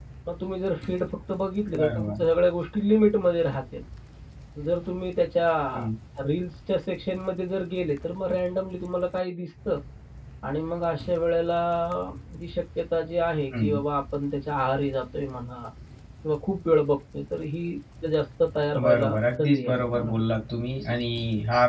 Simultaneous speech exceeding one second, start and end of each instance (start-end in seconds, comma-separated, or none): 18.8-20.2